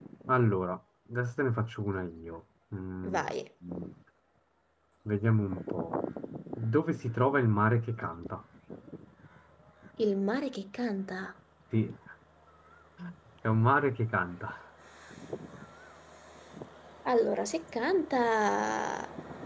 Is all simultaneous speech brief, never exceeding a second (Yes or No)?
Yes